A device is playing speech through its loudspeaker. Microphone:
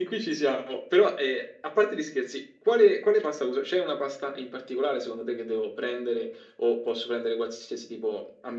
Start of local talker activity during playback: none

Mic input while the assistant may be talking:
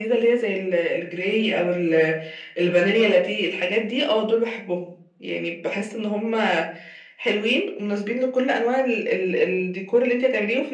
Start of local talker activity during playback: none

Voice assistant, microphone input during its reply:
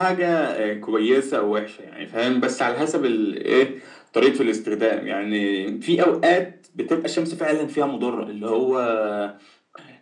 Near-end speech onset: none

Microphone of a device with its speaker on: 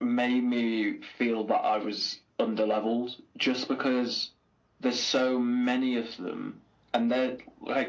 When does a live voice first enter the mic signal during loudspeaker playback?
none

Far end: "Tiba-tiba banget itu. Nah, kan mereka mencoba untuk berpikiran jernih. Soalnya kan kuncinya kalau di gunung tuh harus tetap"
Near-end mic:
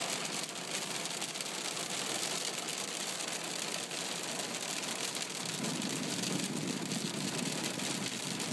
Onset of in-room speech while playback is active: none

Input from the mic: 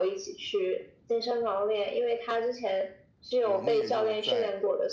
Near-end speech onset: 3.4 s

